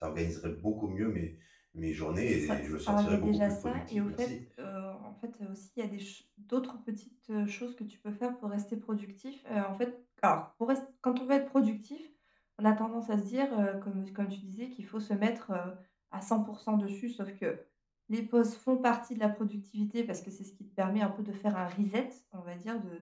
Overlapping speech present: Yes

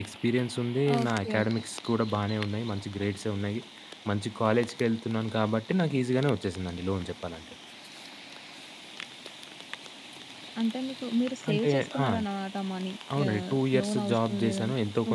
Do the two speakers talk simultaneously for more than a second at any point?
Yes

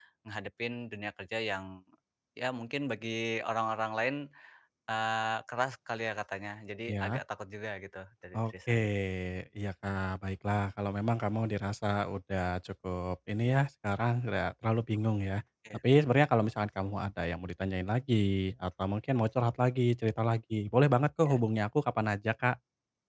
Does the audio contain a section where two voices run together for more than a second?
No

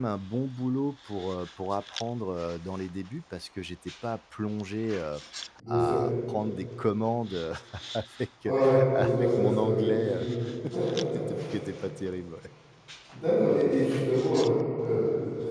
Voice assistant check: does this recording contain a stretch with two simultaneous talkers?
Yes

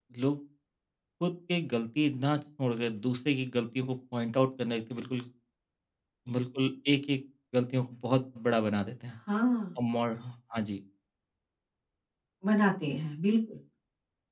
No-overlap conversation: Yes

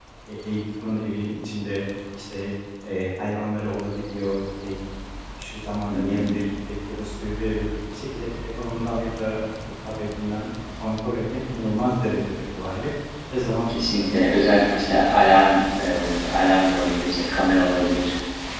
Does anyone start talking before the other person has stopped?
Yes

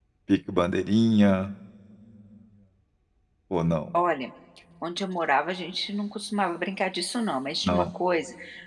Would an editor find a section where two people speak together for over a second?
No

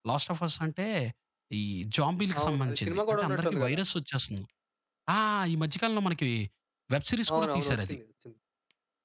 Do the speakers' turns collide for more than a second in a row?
Yes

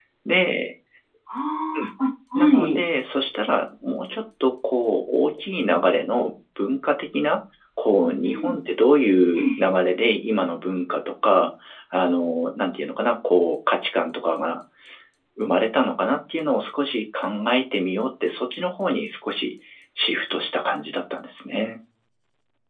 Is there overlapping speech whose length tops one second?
No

